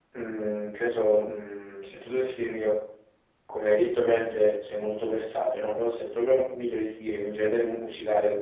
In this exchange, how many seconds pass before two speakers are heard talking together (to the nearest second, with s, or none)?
none